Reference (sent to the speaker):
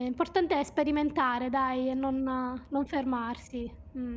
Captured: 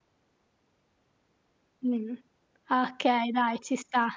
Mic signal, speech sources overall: user only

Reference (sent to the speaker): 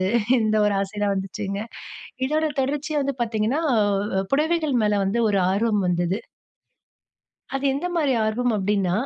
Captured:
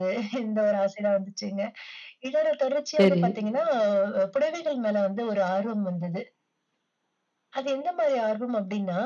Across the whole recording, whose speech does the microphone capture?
both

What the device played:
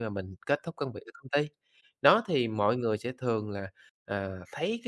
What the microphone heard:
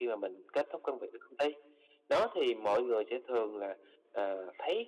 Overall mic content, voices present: echo only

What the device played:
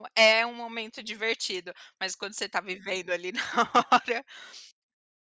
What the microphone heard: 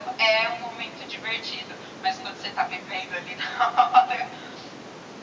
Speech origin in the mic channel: echo only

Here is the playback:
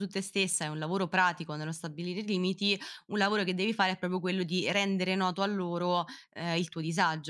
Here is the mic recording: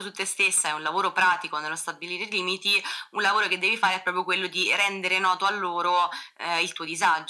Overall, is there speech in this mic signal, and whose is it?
echo only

